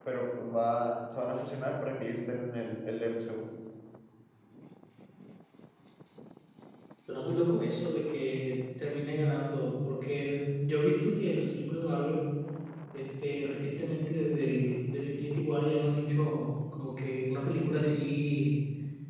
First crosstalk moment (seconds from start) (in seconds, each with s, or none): none